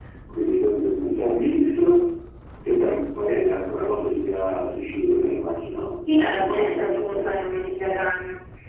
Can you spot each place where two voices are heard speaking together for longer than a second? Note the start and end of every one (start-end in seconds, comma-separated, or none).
6.1-7.5